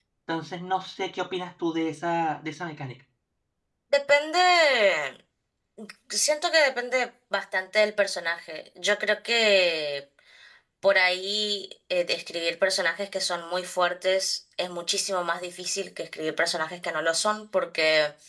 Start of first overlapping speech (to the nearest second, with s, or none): none